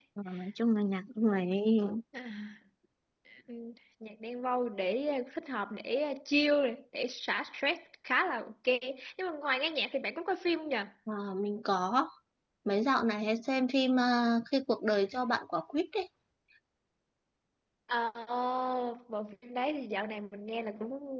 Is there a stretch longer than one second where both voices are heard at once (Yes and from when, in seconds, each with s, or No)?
No